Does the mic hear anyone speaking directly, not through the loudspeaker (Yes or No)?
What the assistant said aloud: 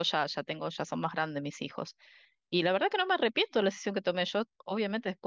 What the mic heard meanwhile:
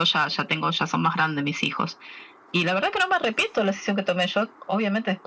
No